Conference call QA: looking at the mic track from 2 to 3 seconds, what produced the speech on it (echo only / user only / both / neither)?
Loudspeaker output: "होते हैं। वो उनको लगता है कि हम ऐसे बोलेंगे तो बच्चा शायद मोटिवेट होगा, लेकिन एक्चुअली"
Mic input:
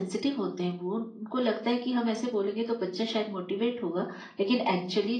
echo only